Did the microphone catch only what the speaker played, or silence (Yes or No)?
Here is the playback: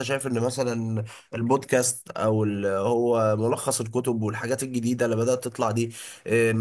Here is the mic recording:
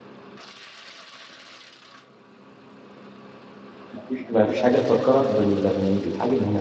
No